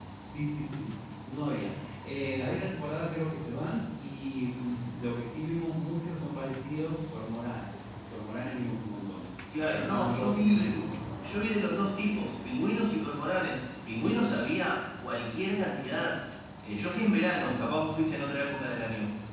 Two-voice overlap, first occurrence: 9.5 s

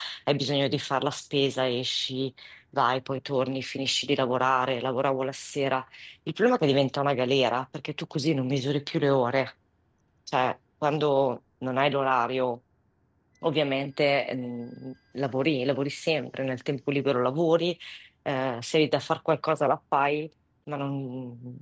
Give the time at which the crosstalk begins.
none

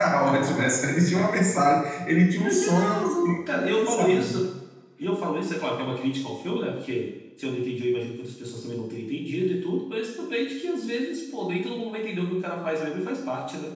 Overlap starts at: 2.4 s

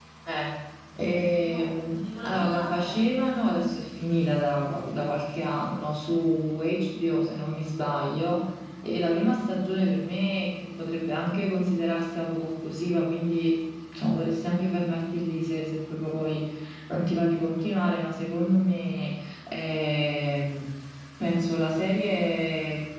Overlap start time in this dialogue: 1.0 s

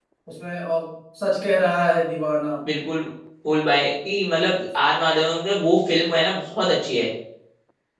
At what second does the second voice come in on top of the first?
none

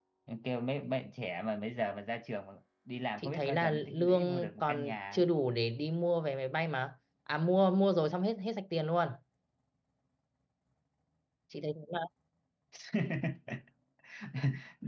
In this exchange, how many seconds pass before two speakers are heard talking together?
3.2 s

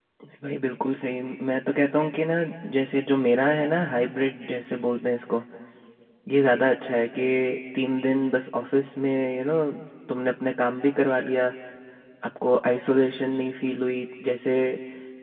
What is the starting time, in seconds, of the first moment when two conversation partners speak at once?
none

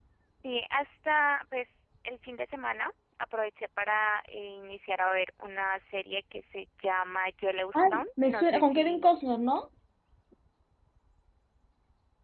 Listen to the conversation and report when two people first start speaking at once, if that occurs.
7.7 s

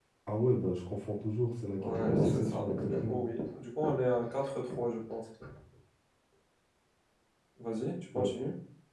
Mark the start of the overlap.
1.8 s

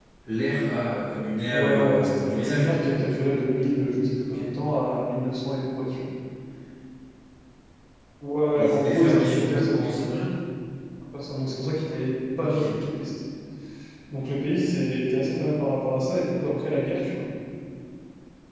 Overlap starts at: 1.5 s

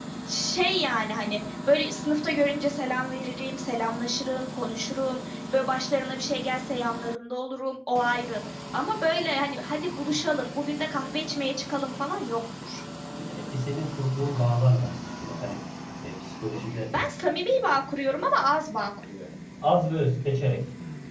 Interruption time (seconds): none

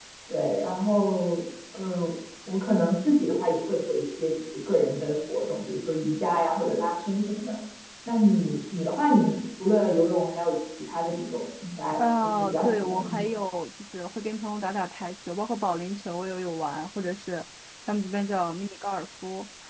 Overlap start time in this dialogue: 12.0 s

